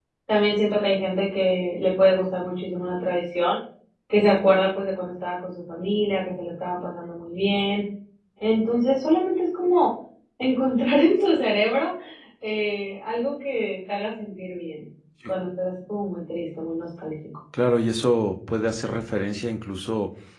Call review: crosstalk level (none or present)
none